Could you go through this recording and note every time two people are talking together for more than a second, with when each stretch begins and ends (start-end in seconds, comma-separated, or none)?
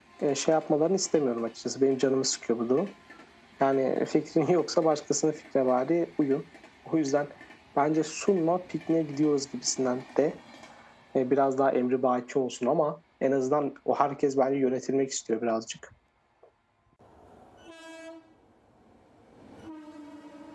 none